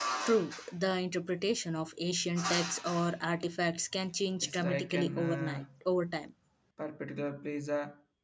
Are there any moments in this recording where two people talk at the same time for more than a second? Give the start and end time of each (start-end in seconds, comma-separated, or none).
4.4-5.6